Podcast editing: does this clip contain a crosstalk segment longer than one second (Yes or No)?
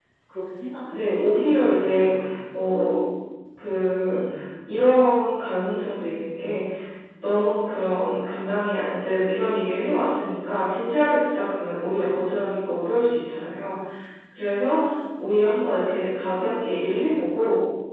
Yes